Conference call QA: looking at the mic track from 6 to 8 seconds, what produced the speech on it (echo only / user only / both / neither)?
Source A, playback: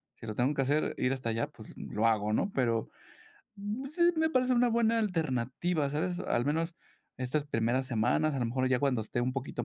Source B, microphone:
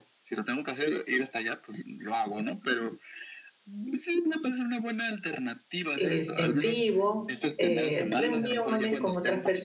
both